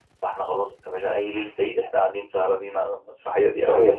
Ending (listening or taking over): taking over